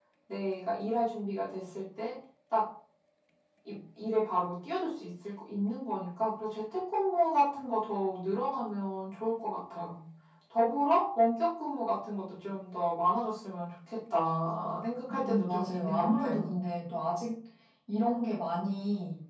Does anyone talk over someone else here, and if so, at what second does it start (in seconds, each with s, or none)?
15.1 s